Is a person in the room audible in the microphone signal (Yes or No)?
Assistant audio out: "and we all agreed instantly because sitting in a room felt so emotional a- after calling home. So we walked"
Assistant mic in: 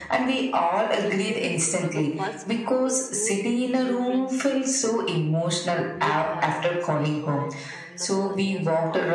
Yes